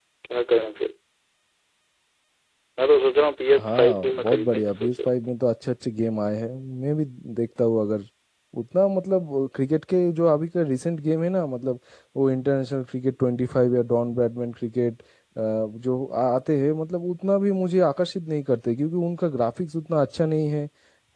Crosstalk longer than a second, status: present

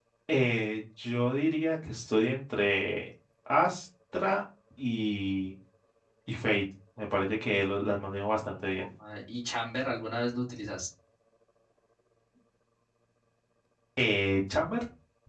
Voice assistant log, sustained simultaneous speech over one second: none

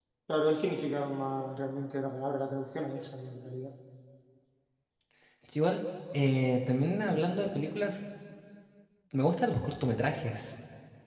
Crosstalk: none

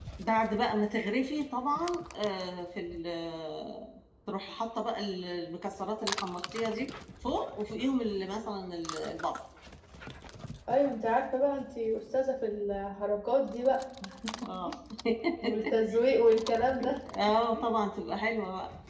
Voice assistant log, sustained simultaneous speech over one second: none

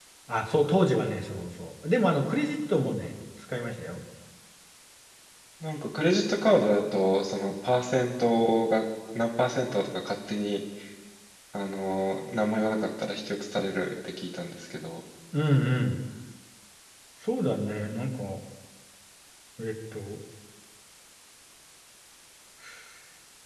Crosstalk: none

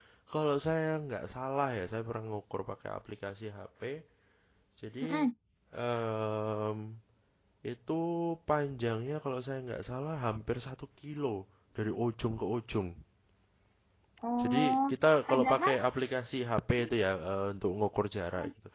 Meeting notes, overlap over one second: none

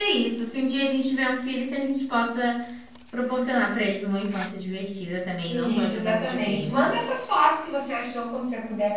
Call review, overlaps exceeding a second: present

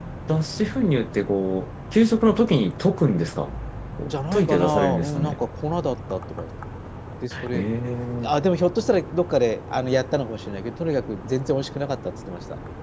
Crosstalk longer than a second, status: present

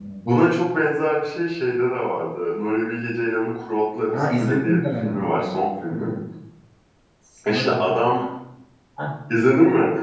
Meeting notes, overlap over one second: present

